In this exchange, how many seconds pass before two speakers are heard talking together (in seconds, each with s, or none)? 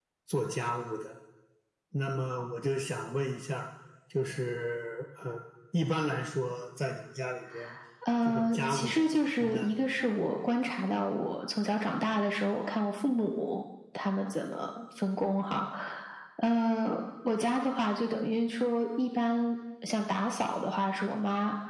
8.2 s